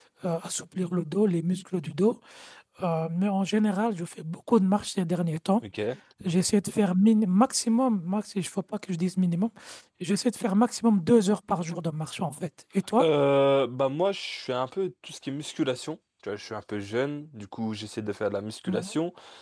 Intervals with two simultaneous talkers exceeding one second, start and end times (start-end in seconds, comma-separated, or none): none